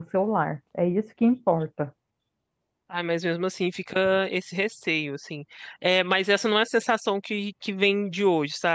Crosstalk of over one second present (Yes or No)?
No